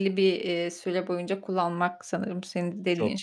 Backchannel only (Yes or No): Yes